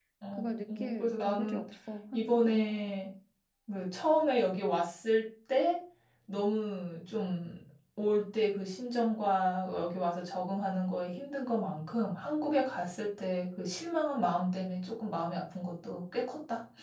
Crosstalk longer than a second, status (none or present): present